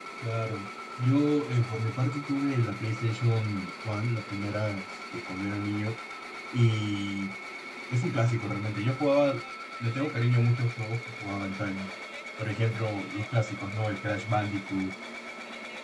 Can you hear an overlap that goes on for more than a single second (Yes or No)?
No